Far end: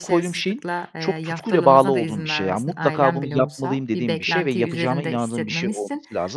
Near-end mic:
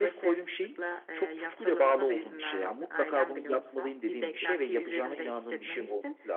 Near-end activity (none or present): none